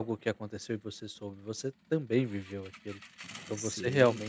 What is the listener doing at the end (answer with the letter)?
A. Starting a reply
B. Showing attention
B